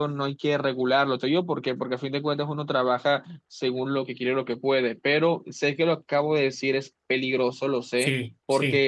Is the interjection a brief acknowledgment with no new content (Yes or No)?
Yes